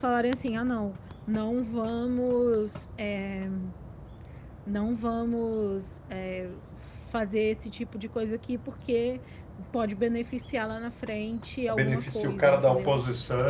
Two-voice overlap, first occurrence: 11.7 s

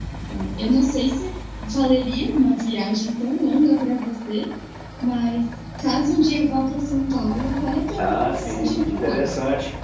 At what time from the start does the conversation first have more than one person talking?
8.0 s

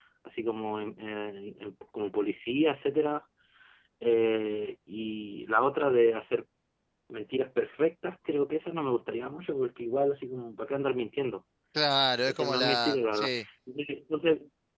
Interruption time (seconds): 12.2 s

